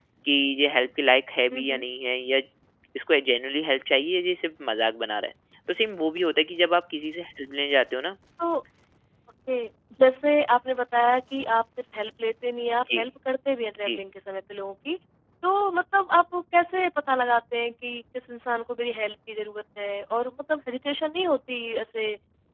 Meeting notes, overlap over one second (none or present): none